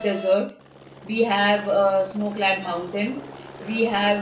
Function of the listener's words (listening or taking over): listening